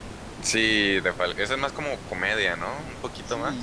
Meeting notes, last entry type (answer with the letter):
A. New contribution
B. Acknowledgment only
A